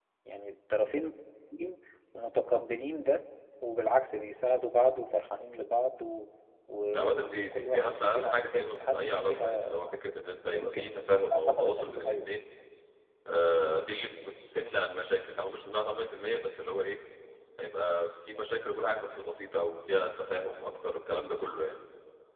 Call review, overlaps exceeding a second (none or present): present